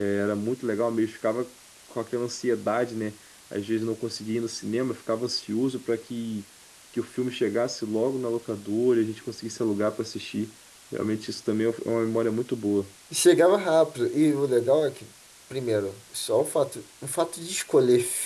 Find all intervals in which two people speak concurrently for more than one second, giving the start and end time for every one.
none

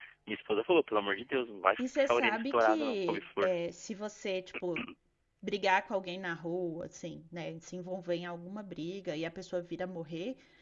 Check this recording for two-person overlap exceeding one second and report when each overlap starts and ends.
1.8-3.5

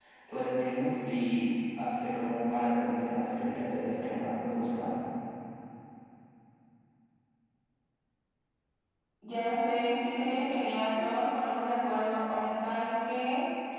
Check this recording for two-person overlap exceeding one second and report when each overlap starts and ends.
none

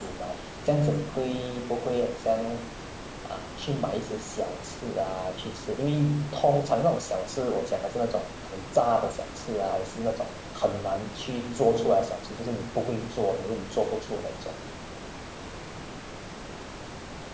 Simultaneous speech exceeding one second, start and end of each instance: none

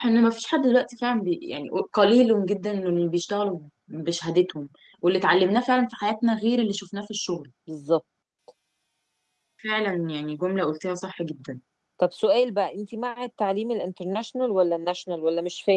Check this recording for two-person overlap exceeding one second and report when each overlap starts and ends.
none

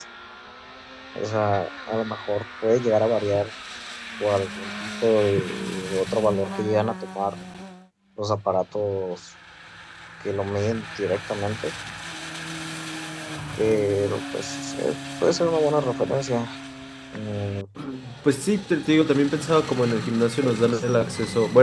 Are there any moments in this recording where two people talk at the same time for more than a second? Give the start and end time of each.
none

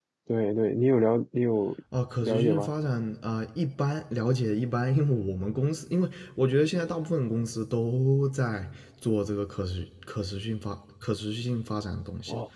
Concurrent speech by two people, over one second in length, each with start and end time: none

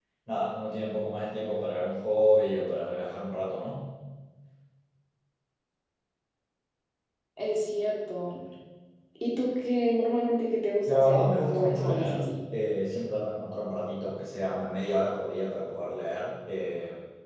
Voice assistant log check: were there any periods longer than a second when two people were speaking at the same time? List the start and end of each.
10.9-12.3

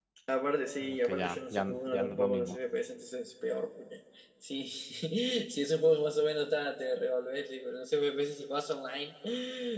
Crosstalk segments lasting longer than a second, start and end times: 0.8-2.6

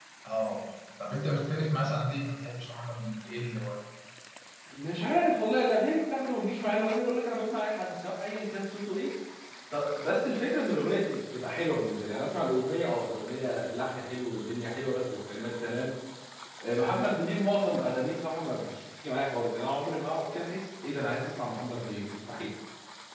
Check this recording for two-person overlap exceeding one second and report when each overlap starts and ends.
none

